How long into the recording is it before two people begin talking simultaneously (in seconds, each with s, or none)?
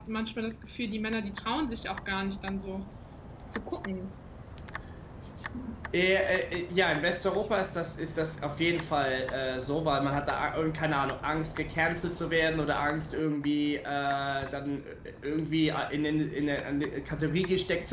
none